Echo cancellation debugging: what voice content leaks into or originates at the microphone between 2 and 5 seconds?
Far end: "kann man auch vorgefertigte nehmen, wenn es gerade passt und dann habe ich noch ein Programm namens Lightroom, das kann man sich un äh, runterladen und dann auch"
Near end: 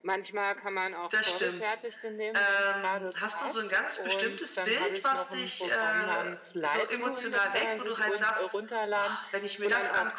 both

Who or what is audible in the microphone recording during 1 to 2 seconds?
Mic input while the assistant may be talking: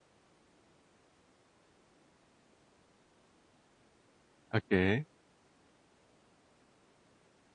neither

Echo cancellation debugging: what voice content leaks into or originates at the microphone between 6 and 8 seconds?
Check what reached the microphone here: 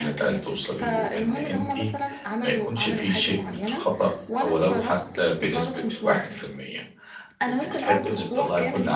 both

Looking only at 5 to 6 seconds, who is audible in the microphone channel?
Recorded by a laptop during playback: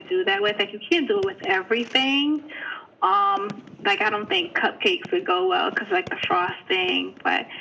echo only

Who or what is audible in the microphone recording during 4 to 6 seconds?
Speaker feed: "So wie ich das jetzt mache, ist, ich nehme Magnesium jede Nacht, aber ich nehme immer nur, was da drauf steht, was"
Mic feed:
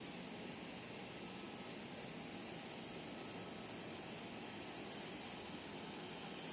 neither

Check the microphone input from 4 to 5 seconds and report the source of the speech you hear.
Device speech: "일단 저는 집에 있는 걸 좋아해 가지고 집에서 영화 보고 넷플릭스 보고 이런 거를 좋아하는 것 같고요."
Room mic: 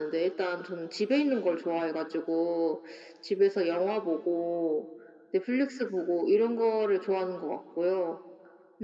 echo only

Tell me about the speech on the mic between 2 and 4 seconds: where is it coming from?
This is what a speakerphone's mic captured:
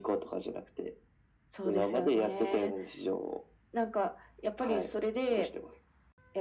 echo only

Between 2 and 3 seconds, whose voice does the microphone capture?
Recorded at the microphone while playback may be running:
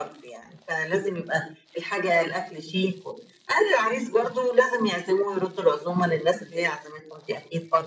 echo only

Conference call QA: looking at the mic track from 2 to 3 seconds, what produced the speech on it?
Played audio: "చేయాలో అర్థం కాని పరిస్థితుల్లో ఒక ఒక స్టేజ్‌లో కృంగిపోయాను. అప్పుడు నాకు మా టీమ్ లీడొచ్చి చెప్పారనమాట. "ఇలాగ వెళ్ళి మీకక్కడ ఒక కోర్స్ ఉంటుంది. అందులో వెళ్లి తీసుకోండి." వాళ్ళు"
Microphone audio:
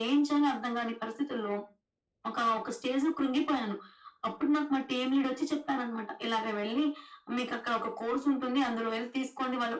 echo only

